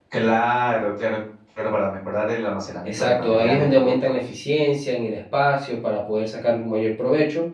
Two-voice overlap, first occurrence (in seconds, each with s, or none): 2.8 s